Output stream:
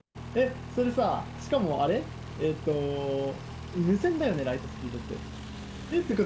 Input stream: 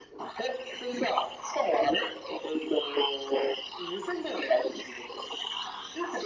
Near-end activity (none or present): none